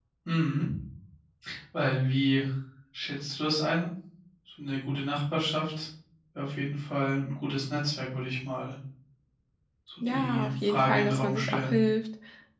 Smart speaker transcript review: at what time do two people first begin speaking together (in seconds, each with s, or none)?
10.0 s